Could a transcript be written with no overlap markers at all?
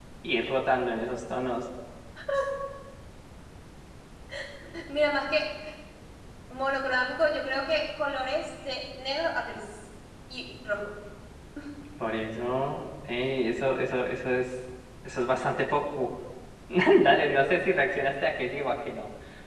Yes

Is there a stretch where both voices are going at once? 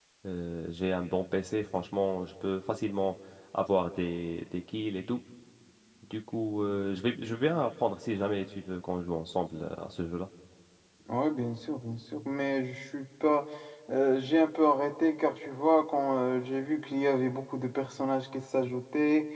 No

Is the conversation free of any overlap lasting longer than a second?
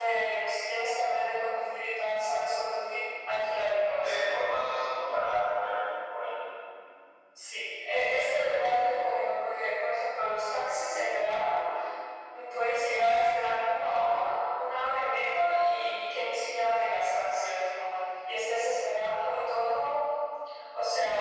Yes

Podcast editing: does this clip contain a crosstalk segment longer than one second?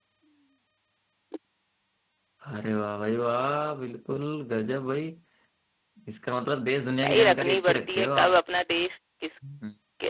Yes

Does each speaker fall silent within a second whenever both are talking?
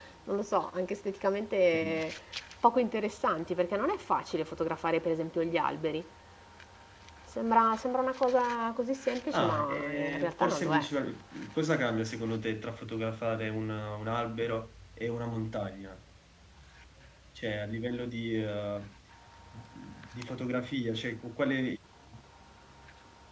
No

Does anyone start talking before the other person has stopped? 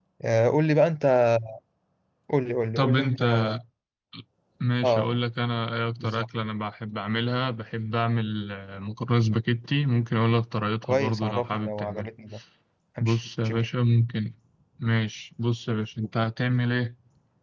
Yes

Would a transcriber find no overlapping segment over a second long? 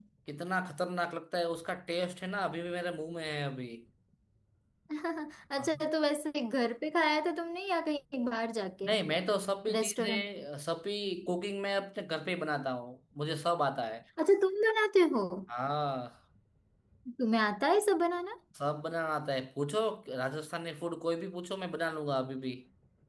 Yes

